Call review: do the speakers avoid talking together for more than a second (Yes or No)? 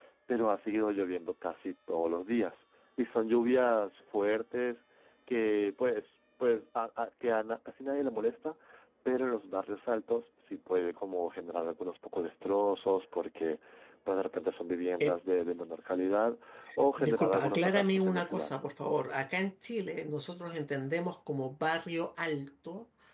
No